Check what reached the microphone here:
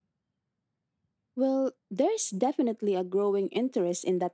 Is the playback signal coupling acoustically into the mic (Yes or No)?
No